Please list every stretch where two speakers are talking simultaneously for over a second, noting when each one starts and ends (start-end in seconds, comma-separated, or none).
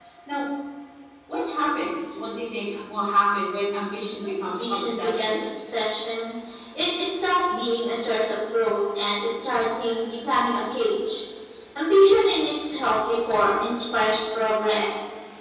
4.2-5.5